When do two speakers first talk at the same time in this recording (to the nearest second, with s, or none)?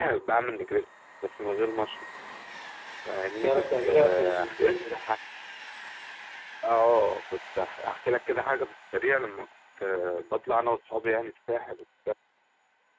3 s